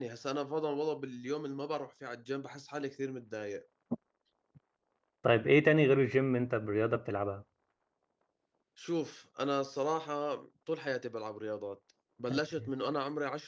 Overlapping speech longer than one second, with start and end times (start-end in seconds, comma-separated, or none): none